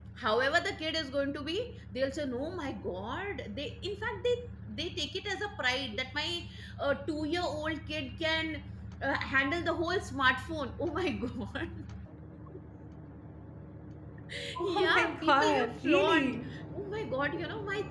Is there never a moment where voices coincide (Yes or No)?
No